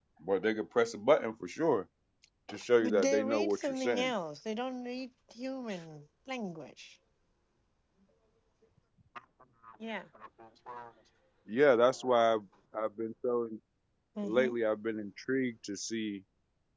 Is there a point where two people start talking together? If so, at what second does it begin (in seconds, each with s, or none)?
2.8 s